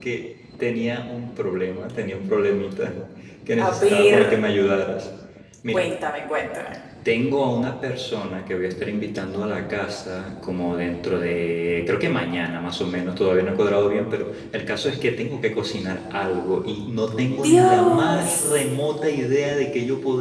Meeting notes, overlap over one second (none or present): present